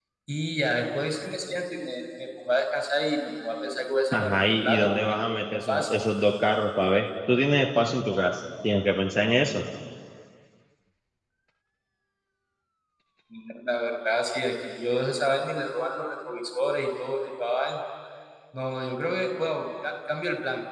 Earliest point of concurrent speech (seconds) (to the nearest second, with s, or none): 4 s